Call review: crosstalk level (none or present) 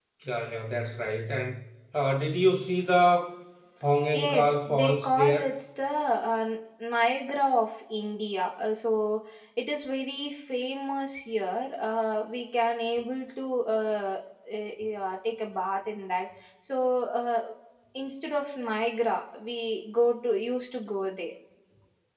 present